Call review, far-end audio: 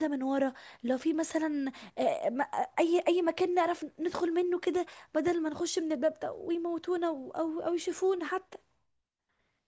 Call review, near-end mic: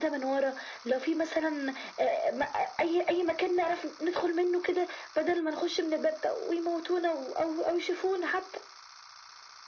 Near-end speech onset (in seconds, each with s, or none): none